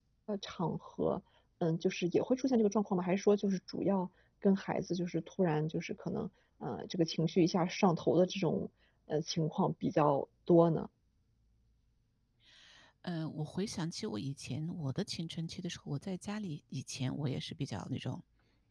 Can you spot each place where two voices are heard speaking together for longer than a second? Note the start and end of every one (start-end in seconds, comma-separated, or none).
none